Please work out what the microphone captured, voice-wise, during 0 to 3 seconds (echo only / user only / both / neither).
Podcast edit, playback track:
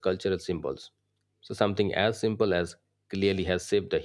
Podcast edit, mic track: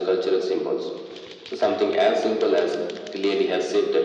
echo only